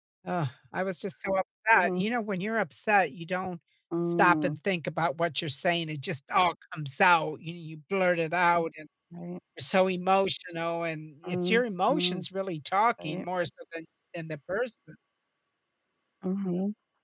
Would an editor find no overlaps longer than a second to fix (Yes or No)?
Yes